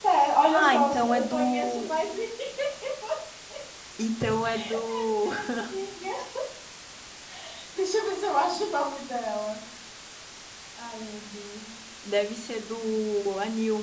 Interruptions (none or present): present